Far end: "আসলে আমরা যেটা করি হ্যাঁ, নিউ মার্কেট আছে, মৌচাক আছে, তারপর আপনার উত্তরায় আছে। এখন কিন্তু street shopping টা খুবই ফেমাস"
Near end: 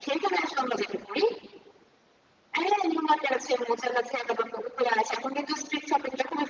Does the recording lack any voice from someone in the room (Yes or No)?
Yes